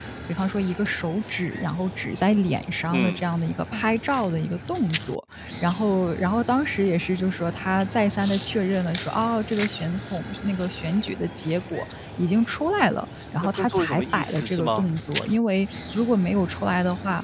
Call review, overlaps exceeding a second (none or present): present